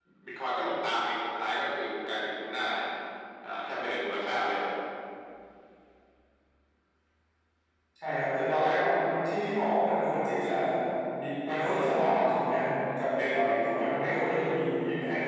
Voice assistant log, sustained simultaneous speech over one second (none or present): none